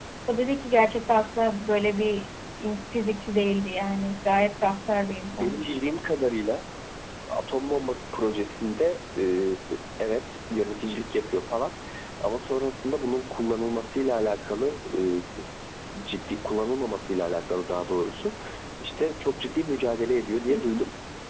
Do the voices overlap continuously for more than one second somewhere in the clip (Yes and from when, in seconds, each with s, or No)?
No